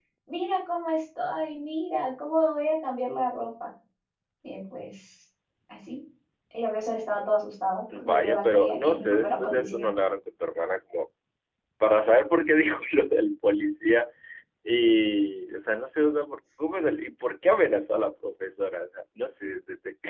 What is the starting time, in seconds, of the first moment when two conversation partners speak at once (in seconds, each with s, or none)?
7.9 s